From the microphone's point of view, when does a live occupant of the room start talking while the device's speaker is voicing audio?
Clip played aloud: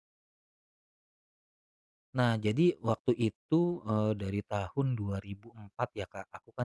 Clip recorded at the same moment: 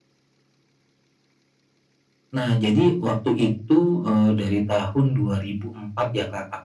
none

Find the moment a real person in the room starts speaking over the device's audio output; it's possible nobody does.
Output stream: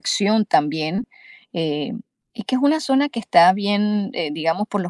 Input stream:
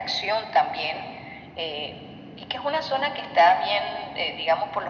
none

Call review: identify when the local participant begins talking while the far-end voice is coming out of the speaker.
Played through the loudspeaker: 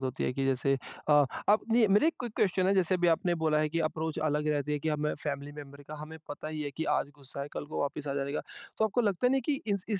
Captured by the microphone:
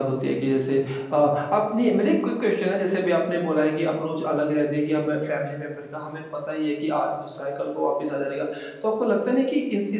none

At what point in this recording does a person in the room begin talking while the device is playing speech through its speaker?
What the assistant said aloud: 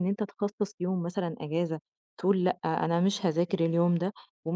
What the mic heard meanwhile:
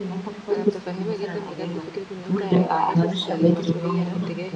0.5 s

